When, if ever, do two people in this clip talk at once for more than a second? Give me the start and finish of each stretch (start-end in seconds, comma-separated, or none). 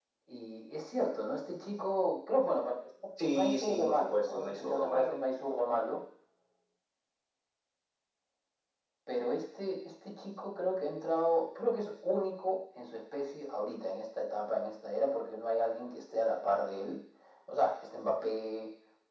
3.3-5.2